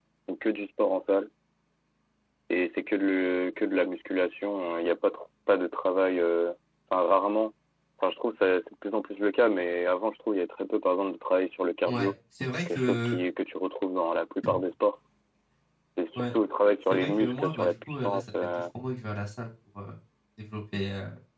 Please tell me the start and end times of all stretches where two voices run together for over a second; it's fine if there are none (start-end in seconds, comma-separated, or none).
16.9-18.6